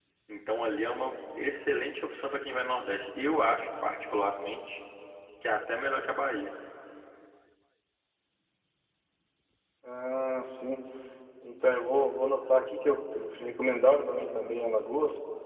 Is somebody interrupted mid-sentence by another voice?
No

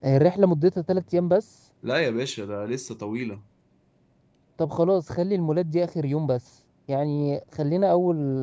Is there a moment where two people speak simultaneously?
No

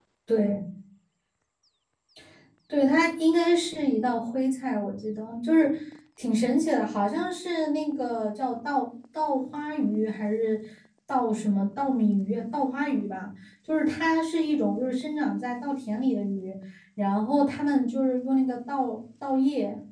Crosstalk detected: No

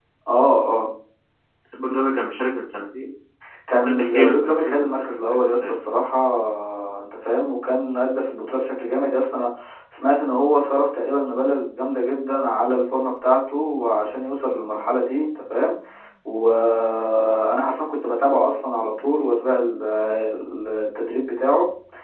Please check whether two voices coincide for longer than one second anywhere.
Yes, from 3.7 s

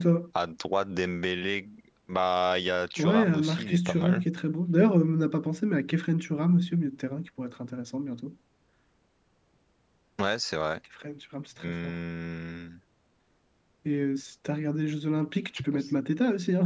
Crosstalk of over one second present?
Yes, from 3.0 s

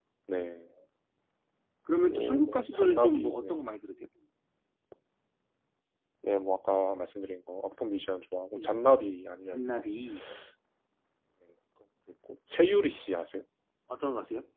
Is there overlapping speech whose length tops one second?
Yes, from 2.0 s

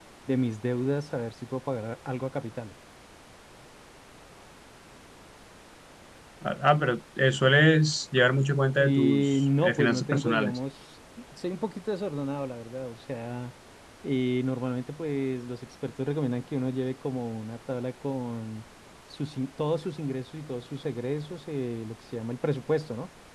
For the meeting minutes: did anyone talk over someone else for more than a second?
Yes, from 8.8 s

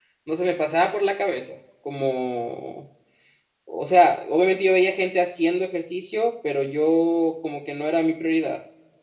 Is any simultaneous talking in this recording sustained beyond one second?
No

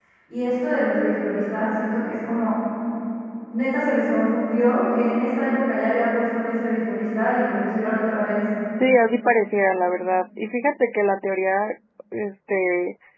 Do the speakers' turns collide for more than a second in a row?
No

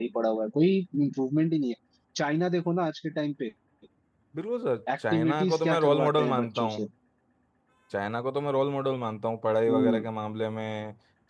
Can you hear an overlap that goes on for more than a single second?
Yes, from 5.1 s

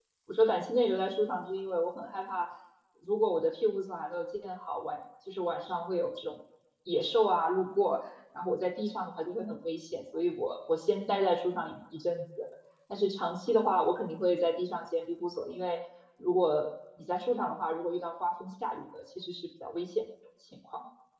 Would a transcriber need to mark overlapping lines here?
No

